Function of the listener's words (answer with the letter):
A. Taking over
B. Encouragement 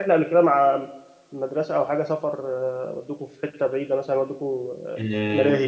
A